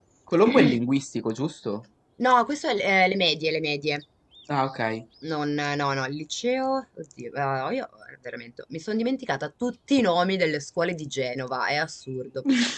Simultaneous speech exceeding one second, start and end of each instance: none

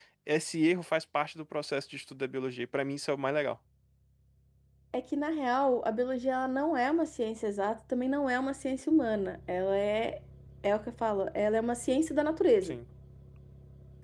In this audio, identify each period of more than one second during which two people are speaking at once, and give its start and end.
none

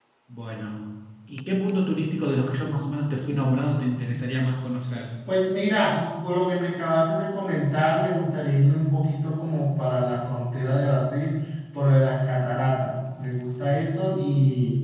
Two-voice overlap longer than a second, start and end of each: none

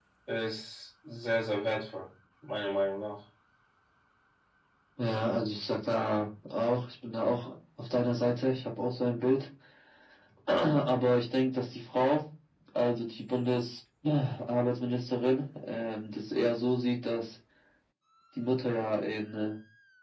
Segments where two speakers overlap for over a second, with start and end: none

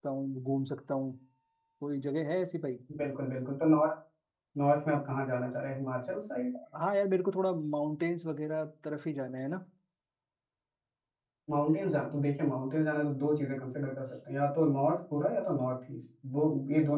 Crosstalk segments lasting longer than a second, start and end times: none

